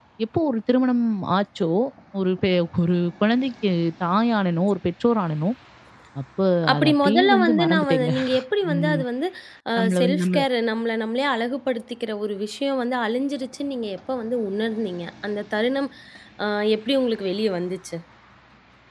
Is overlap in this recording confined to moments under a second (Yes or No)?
No